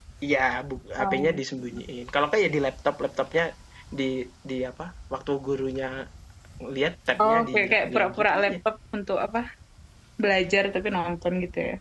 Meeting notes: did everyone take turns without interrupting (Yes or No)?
No